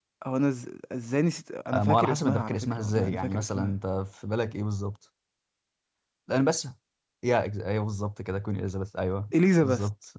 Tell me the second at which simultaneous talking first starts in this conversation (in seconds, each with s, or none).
1.7 s